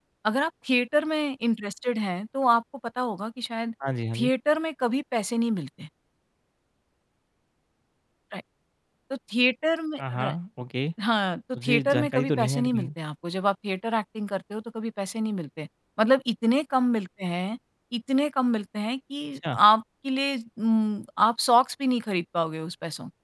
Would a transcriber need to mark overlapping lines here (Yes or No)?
Yes